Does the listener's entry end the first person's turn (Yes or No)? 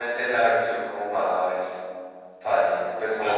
No